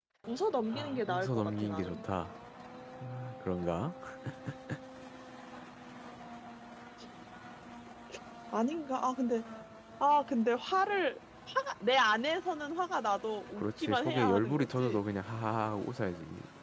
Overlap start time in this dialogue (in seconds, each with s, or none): 0.7 s